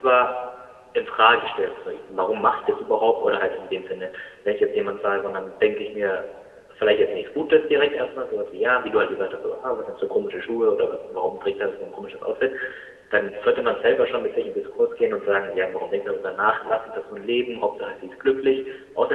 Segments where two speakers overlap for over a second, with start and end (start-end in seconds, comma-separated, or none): none